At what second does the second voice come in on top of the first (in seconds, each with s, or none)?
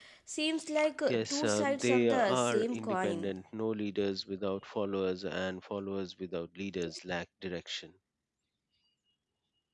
1.1 s